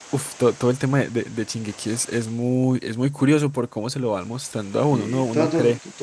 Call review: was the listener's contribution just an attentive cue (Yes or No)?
No